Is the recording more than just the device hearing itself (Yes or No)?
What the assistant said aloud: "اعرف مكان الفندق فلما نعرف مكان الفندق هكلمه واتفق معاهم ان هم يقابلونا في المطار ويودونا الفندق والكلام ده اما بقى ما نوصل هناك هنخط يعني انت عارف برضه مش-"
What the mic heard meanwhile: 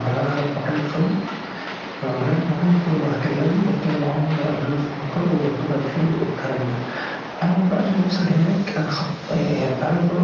No